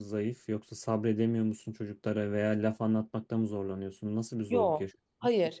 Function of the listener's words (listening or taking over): taking over